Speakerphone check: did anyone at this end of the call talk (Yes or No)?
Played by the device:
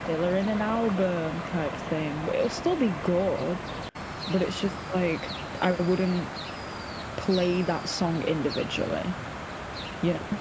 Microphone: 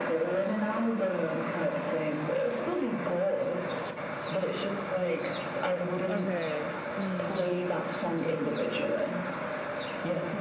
Yes